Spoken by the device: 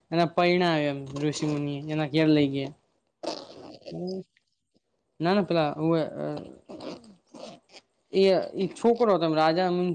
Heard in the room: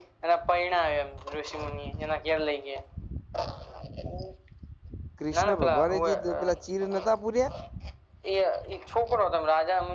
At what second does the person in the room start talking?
5.2 s

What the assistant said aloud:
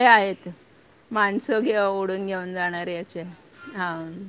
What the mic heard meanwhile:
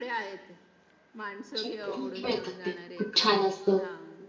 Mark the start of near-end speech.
1.6 s

